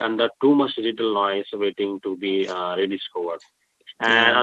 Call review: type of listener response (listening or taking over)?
listening